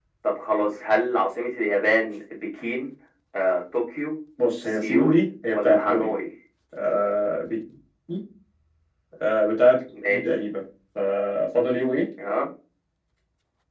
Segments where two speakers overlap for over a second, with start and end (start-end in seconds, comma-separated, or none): 4.8-6.1